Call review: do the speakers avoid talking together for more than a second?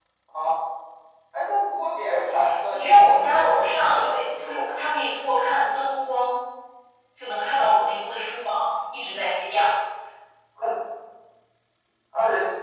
No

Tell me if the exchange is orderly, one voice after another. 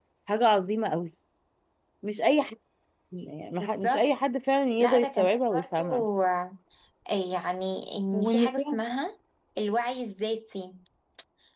No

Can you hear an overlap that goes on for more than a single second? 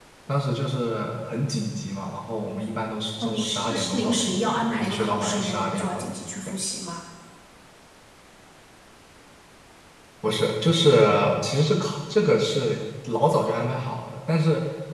Yes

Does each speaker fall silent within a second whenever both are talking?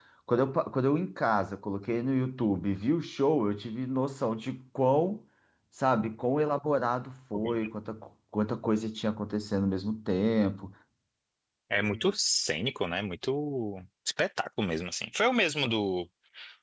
Yes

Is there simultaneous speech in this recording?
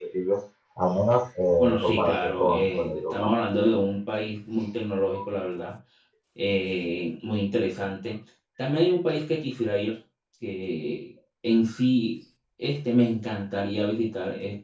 Yes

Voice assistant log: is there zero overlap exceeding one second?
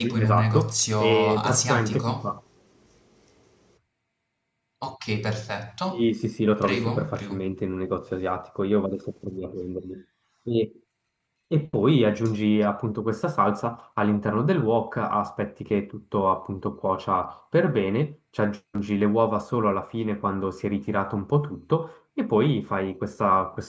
No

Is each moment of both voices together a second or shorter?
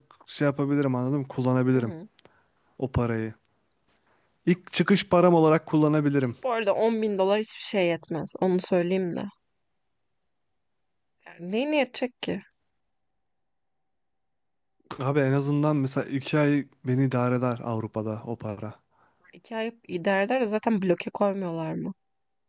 Yes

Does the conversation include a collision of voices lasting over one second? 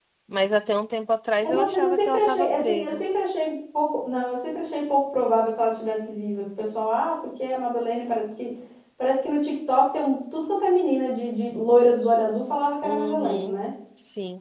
Yes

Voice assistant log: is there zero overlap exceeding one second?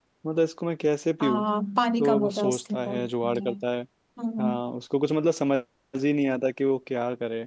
No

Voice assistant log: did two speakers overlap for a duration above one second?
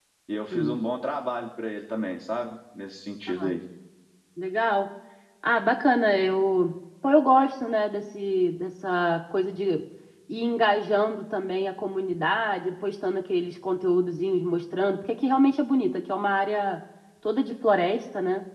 No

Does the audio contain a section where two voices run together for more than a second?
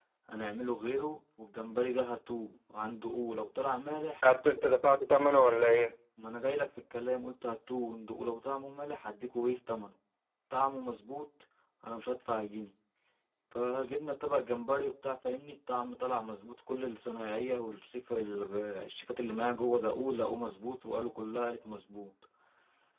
No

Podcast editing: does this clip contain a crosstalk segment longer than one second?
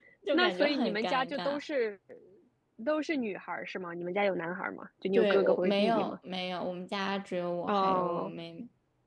Yes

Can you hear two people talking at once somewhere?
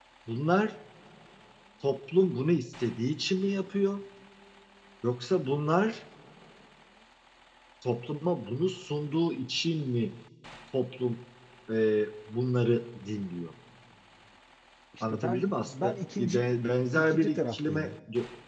Yes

